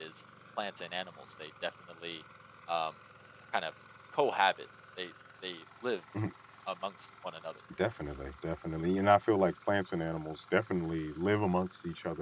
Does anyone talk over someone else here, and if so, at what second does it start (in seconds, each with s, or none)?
none